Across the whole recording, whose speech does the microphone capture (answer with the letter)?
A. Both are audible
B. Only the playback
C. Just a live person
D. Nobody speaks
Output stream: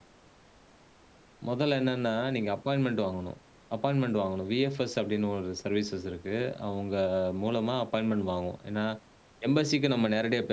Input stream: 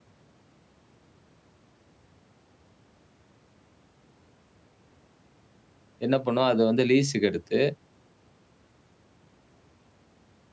C